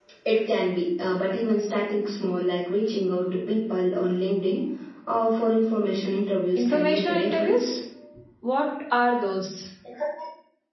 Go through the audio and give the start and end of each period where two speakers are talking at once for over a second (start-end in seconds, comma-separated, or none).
6.5-7.8